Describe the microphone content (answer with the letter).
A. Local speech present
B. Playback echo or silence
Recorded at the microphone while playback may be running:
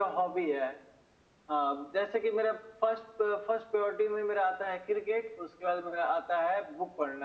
B